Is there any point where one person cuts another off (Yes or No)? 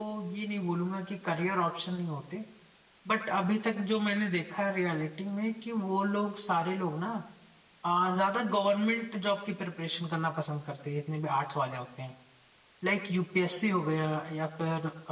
No